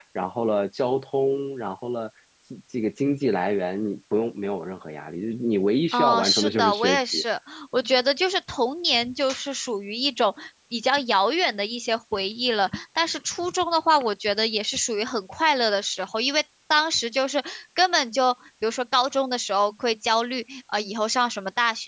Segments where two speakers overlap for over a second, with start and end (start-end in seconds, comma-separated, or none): 5.9-7.2